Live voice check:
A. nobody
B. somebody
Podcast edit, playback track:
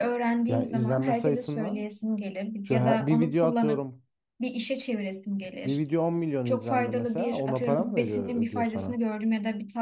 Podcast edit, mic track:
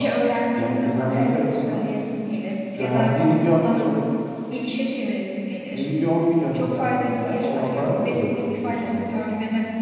B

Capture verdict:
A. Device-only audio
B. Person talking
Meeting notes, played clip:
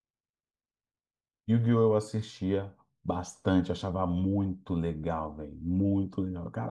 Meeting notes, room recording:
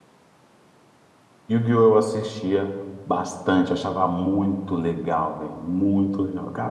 A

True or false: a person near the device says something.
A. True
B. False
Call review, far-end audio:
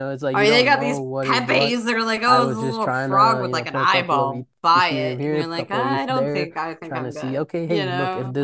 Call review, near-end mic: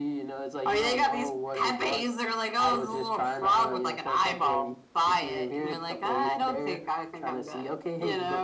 B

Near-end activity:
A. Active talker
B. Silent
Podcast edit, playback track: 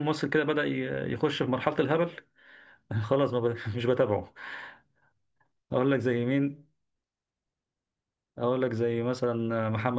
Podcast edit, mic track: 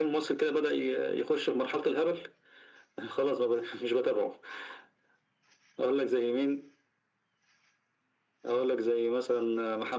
B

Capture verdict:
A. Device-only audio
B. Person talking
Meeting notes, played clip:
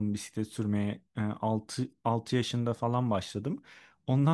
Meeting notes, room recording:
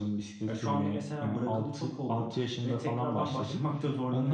B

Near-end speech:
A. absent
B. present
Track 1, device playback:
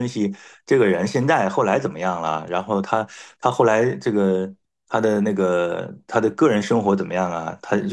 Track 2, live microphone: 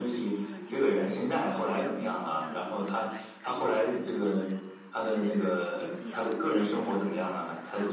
B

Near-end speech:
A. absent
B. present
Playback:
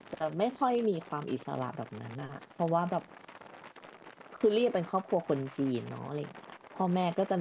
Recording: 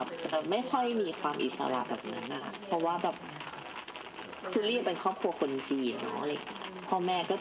B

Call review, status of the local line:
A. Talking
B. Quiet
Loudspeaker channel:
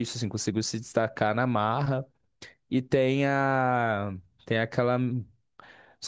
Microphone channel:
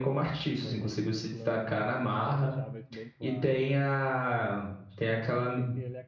A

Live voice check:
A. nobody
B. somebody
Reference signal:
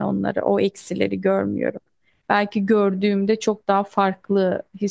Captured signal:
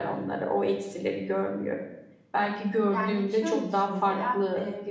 B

